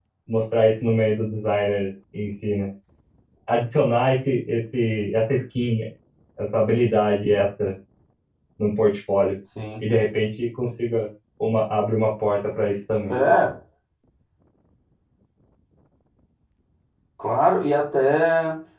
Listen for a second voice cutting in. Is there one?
No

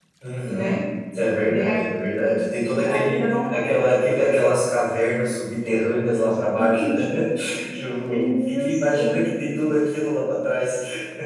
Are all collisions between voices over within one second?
No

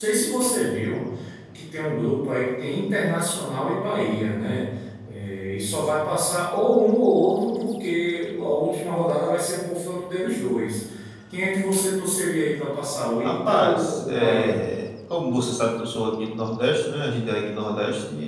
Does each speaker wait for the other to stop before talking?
No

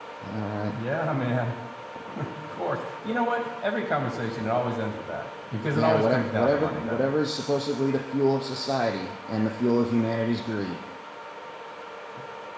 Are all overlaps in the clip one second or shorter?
No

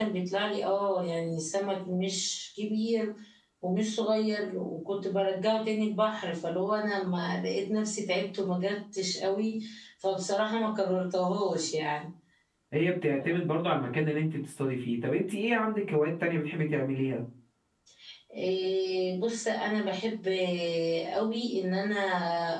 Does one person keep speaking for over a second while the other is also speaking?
No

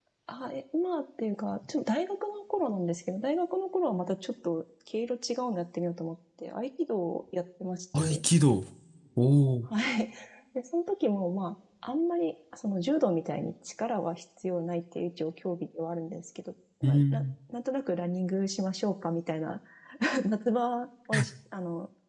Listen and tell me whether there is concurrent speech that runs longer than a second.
No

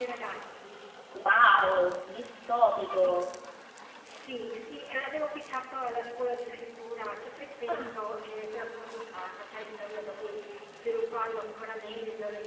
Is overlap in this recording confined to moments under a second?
Yes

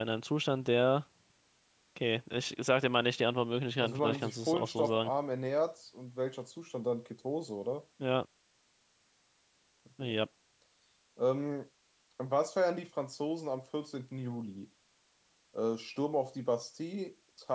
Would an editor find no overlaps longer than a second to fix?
No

